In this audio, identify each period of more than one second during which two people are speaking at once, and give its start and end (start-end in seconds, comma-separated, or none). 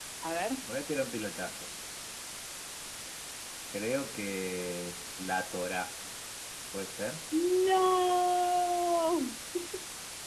none